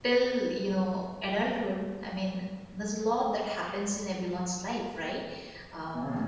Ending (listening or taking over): listening